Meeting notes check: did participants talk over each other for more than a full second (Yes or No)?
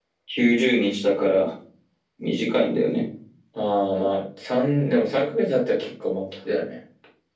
No